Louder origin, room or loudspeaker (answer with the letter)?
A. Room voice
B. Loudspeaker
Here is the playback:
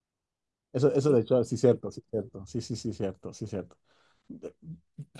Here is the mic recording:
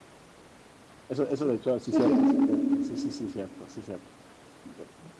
A